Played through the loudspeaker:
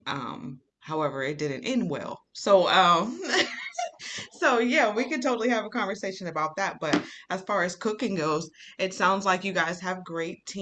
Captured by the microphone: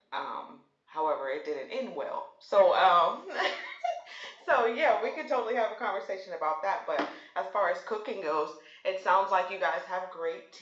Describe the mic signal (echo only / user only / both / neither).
echo only